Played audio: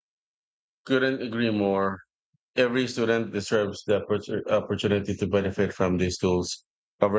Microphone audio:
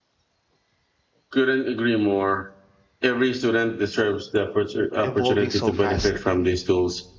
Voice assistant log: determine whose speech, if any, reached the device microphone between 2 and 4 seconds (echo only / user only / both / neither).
echo only